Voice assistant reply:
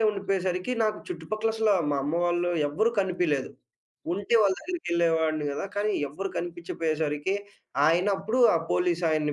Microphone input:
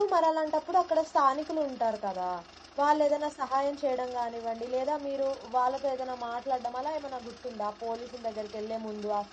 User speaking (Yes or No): Yes